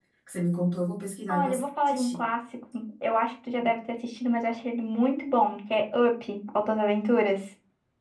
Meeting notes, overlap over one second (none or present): none